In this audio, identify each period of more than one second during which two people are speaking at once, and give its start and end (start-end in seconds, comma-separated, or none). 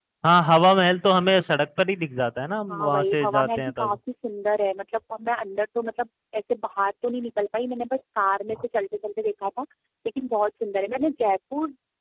2.7-4.0